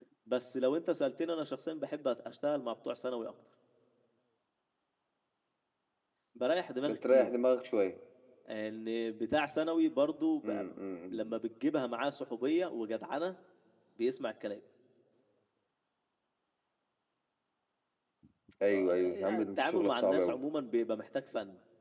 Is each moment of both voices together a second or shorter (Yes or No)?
No